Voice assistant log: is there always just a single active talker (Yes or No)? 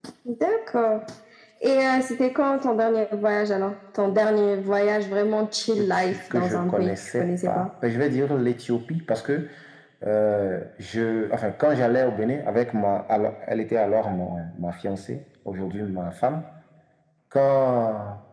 No